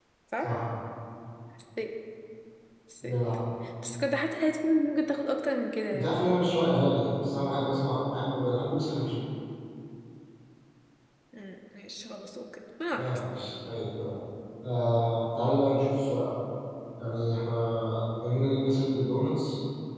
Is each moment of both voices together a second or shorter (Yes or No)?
Yes